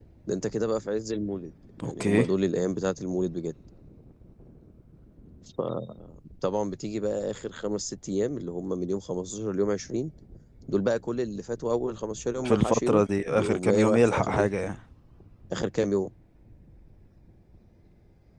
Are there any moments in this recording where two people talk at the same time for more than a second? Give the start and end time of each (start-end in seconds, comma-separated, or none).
12.4-14.5